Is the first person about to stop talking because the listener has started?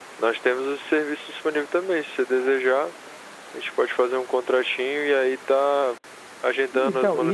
No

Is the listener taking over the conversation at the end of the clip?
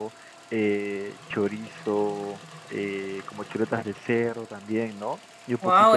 Yes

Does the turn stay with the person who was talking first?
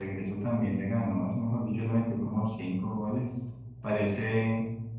Yes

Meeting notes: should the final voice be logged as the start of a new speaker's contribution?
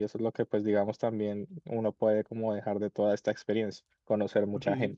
Yes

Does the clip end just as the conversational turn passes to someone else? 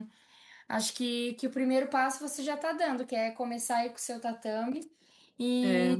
No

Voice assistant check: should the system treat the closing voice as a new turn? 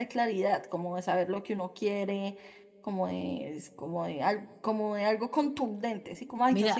No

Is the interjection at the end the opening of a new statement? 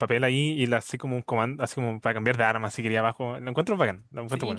Yes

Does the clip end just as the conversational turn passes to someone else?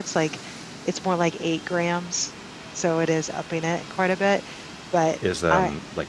Yes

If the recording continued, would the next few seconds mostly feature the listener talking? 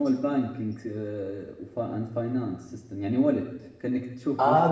Yes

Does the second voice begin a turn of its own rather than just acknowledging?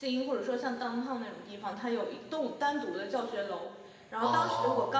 No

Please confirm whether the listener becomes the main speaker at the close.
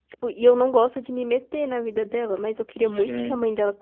No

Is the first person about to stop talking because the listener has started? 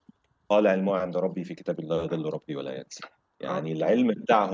No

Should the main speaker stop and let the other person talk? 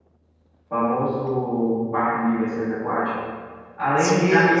No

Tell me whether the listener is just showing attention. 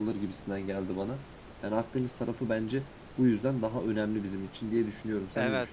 No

